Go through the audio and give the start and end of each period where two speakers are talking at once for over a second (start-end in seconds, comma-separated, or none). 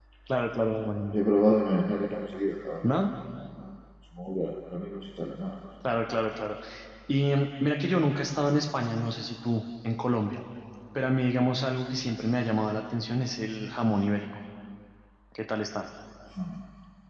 none